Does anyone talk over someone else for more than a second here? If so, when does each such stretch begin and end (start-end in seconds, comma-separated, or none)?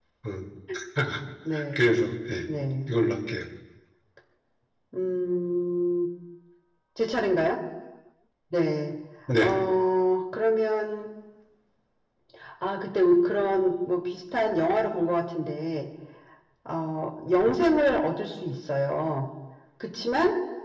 none